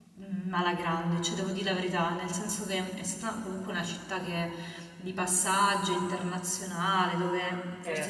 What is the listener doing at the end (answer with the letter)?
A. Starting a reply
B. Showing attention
B